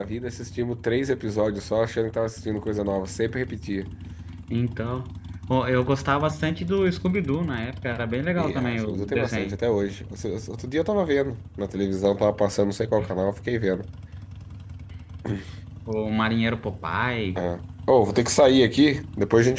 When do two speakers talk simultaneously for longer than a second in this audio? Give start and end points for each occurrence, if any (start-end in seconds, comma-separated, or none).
8.4-9.6